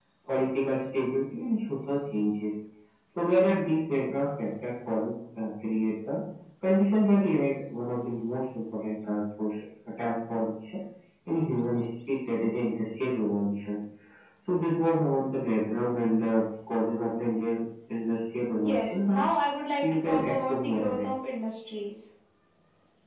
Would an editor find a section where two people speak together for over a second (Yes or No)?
Yes